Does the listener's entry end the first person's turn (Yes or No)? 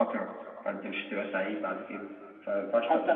Yes